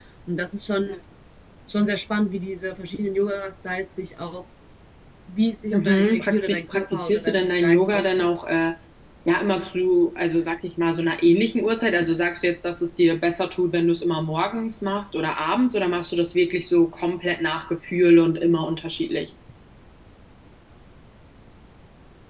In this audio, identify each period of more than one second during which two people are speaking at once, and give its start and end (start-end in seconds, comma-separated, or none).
5.7-8.3